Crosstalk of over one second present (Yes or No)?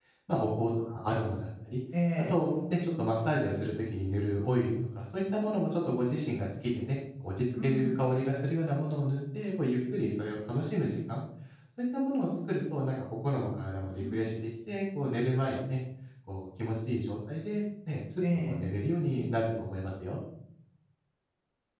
No